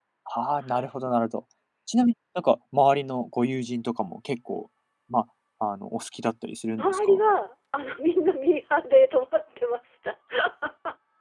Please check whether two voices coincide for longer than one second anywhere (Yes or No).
No